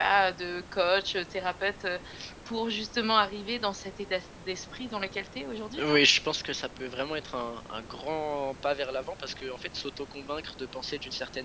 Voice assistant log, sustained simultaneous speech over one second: none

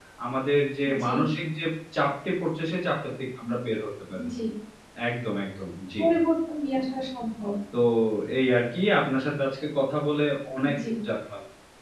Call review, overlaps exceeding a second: none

